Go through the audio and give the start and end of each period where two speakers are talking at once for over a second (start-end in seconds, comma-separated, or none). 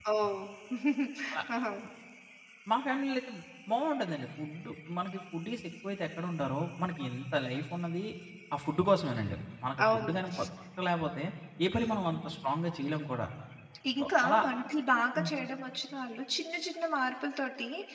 none